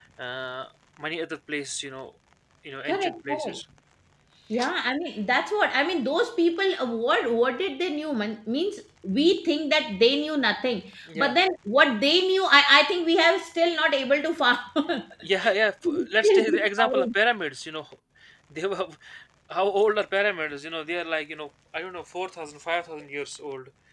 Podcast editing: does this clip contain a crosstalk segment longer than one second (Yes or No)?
Yes